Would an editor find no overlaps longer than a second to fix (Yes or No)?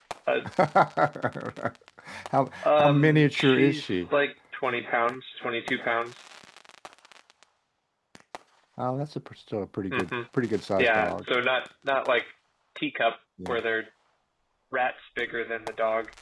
No